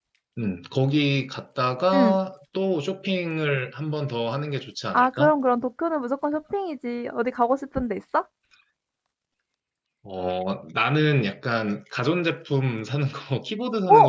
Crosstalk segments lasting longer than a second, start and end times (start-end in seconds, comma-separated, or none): none